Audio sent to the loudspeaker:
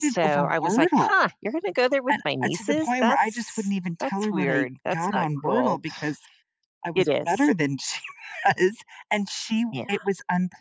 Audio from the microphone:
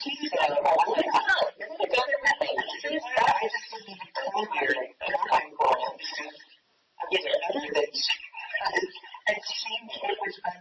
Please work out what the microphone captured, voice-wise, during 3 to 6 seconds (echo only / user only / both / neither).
echo only